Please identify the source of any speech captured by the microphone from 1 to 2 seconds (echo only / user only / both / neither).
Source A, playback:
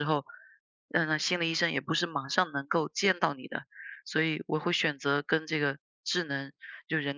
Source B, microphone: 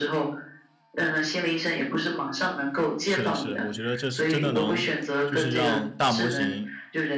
echo only